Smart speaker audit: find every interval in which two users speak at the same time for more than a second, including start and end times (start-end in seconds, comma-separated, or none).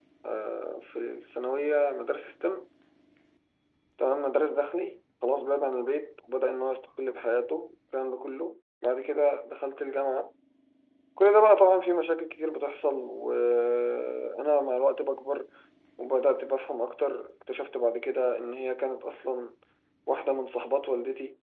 none